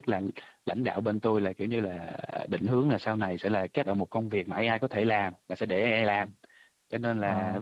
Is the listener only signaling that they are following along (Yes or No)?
Yes